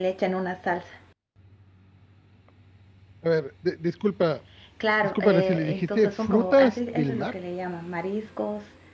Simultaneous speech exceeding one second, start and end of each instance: 5.2-7.3

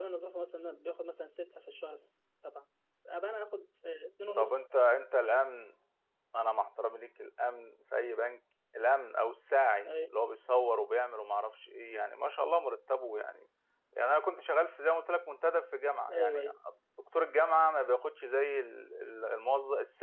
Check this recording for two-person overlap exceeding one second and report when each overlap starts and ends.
none

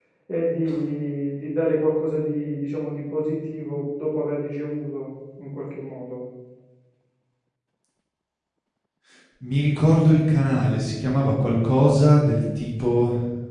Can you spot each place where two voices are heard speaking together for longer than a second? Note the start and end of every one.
none

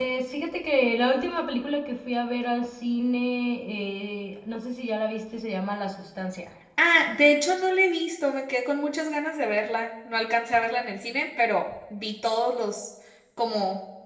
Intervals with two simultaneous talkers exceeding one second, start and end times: none

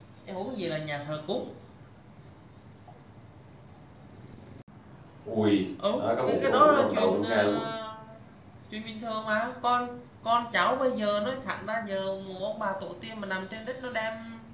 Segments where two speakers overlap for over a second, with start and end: 6.0-7.6

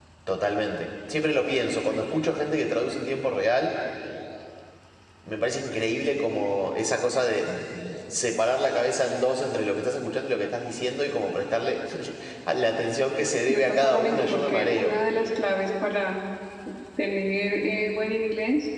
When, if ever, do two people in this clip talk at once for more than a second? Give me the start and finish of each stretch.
13.5-14.9

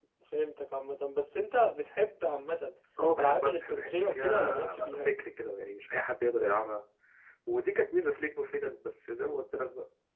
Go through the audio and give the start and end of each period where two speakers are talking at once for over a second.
3.2-5.0

